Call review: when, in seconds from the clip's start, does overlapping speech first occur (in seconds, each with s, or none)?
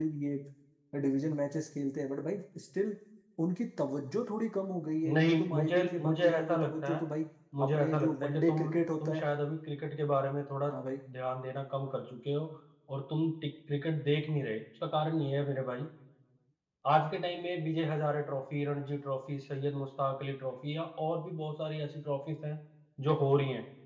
5.1 s